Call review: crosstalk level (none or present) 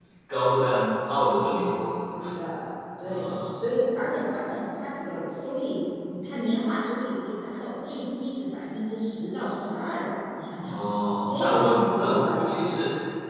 present